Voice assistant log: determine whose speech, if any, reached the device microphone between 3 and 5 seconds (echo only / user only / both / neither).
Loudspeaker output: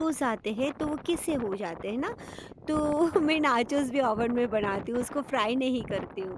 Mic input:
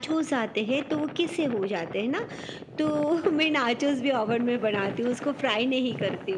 echo only